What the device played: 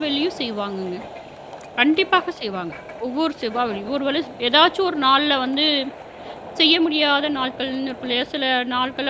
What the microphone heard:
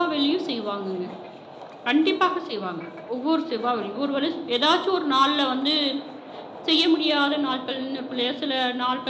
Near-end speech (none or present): none